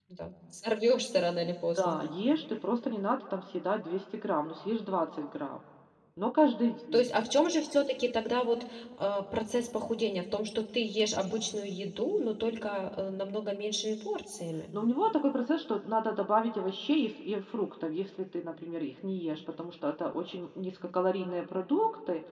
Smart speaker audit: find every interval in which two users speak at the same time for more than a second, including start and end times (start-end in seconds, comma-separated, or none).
none